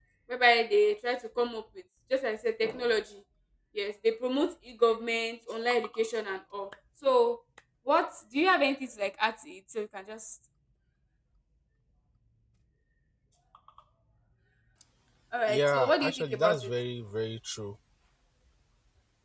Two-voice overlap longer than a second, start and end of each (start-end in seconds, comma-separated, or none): 15.5-16.7